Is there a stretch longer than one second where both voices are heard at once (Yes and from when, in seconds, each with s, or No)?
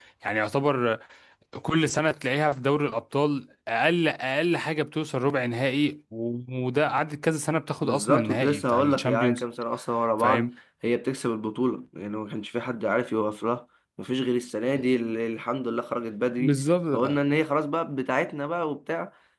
Yes, from 7.8 s